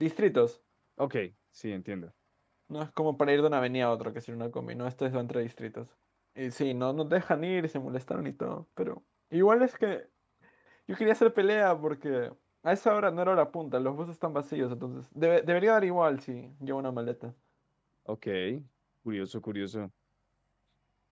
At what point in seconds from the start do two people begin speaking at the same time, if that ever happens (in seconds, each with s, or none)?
none